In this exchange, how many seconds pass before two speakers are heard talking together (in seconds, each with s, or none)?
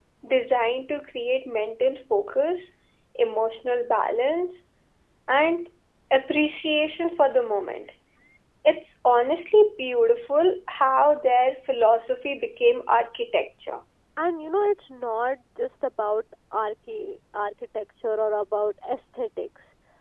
none